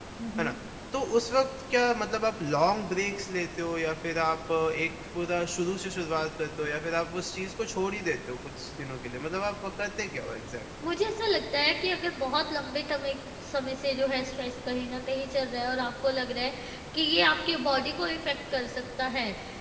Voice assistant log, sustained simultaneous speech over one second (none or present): none